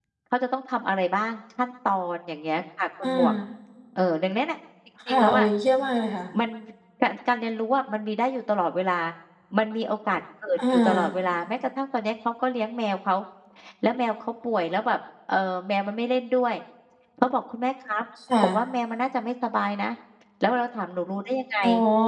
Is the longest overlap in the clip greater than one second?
No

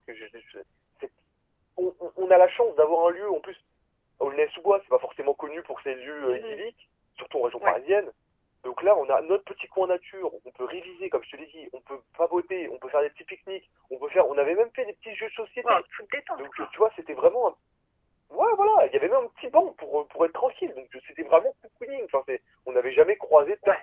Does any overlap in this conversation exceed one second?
No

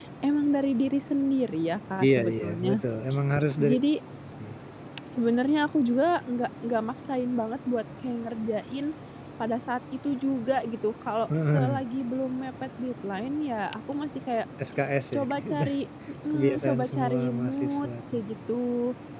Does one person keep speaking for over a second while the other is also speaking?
Yes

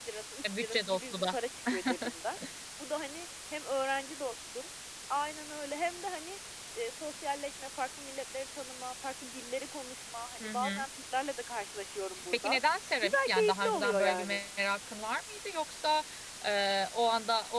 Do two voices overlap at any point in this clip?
Yes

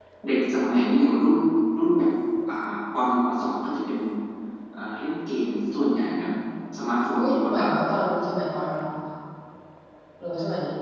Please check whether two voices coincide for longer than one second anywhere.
No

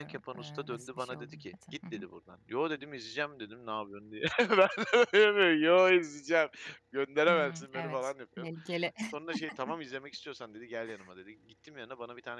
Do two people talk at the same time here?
Yes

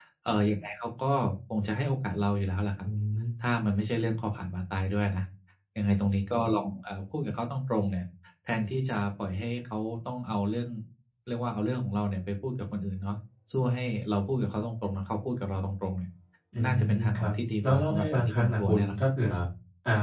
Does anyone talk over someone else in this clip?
Yes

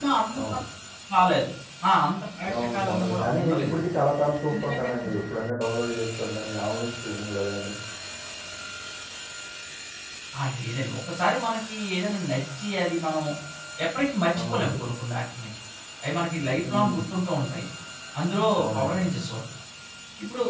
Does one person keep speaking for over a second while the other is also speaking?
Yes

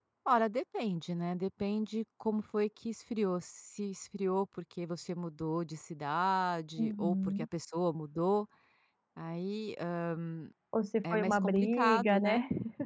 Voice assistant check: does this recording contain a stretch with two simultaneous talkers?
Yes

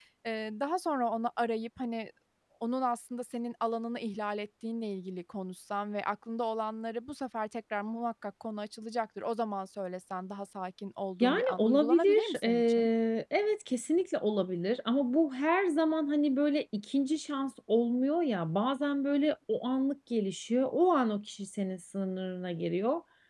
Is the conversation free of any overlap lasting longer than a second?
No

